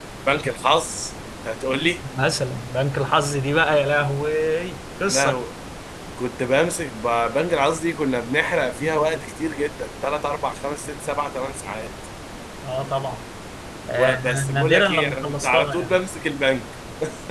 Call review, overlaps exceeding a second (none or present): present